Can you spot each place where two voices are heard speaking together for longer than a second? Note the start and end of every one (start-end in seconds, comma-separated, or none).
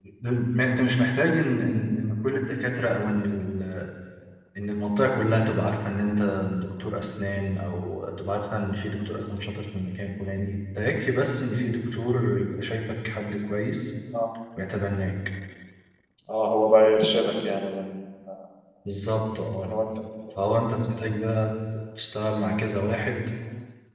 none